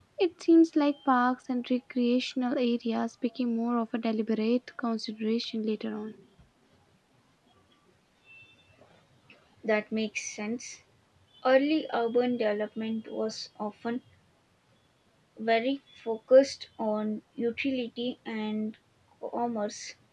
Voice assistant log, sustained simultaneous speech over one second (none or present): none